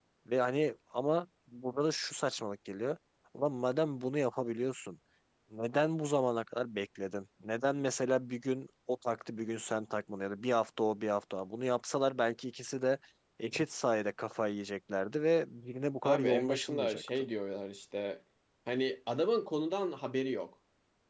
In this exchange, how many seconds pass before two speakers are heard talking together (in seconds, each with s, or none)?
16.0 s